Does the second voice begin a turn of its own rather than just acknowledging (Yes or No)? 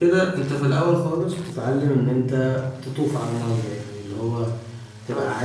No